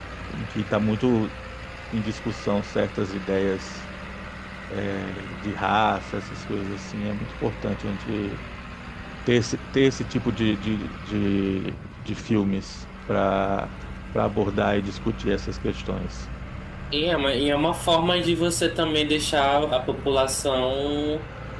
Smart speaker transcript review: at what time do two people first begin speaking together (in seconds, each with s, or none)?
none